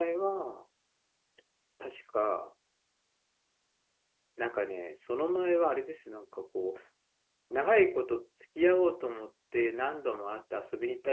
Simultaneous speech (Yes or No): No